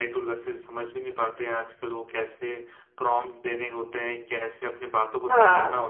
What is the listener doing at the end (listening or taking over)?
listening